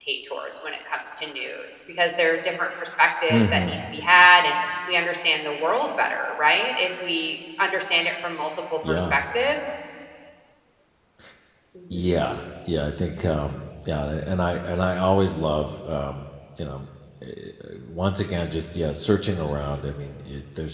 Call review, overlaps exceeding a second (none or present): none